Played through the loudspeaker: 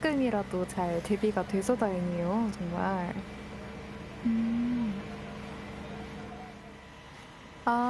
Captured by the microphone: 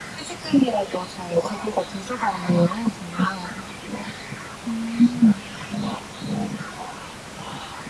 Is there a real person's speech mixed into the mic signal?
No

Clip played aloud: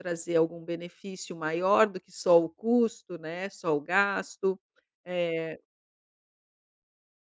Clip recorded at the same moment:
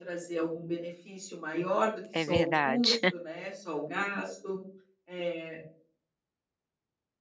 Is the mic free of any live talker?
No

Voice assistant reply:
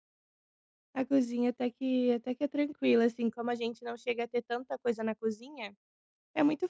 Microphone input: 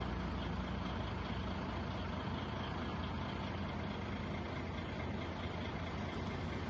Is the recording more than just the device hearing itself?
No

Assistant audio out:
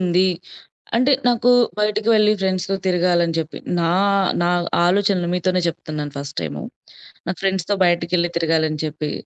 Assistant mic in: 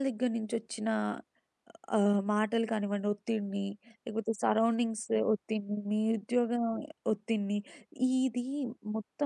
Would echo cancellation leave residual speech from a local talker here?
Yes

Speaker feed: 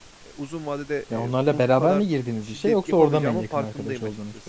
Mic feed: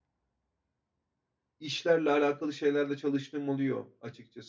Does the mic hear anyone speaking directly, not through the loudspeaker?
Yes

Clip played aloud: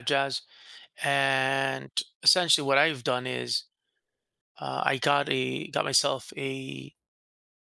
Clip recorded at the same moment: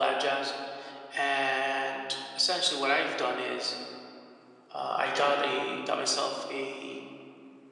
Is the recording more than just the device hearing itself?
No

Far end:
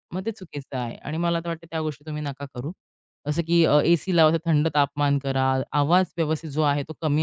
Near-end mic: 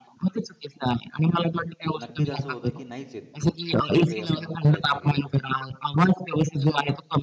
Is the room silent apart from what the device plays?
No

